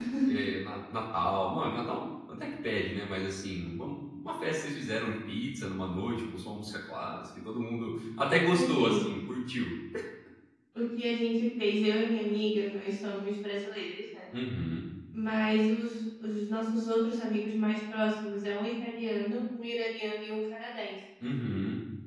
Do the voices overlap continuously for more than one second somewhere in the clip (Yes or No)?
No